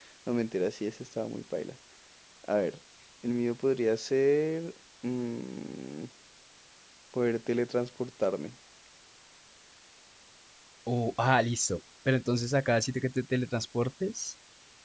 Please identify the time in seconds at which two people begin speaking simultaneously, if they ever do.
none

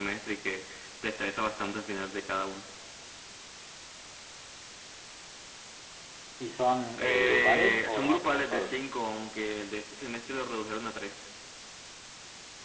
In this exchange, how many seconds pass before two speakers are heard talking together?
7 s

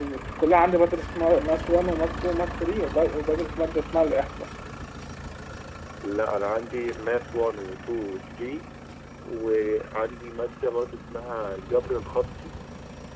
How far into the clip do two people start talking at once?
none

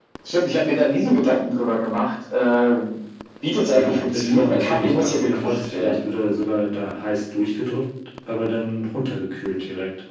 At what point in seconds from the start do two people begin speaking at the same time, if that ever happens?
4 s

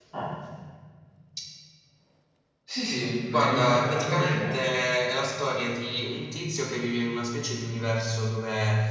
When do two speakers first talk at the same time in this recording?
3 s

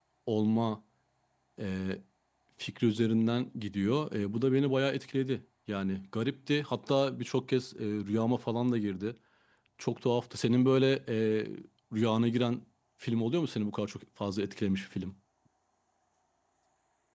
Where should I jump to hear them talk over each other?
none

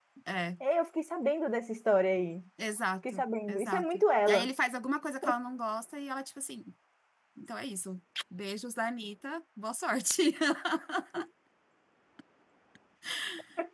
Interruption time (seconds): 3 s

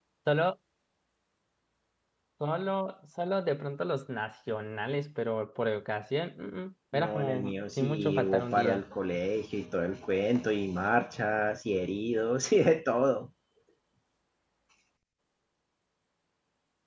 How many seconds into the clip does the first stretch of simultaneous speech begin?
7 s

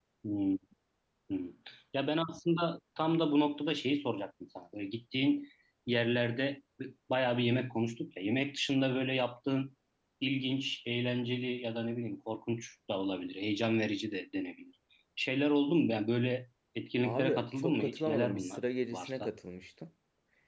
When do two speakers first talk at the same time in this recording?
17 s

